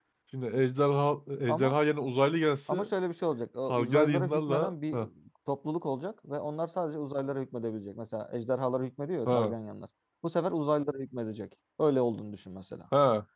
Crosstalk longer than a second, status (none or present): present